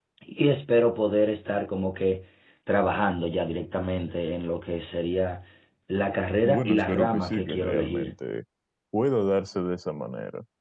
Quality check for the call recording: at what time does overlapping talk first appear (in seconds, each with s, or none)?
6.4 s